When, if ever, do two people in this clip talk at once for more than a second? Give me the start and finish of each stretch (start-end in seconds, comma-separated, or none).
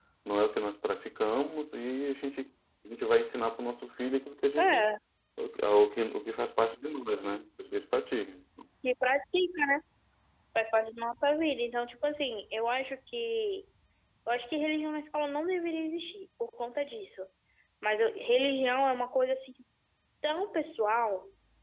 none